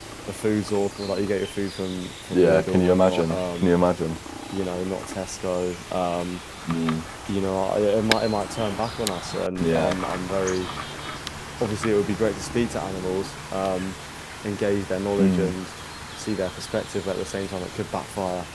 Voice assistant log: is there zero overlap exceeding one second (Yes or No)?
No